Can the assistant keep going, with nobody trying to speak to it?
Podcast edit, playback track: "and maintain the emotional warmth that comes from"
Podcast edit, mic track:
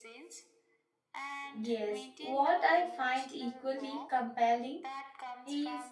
No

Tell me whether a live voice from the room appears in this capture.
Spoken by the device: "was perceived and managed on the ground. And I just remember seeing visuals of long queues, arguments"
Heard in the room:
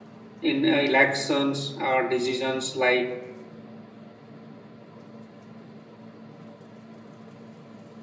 Yes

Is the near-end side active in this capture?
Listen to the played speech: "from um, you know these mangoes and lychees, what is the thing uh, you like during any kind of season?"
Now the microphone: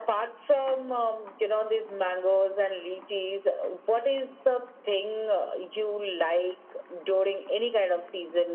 No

